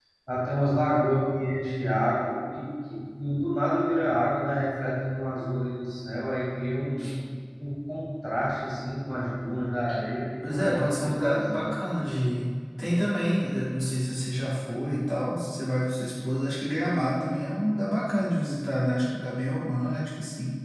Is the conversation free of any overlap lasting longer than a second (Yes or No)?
No